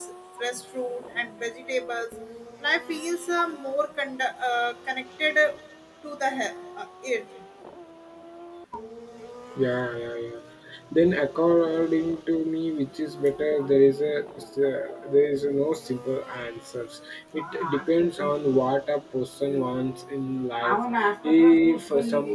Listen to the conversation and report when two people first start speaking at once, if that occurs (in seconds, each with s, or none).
none